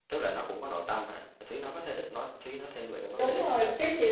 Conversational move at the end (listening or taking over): taking over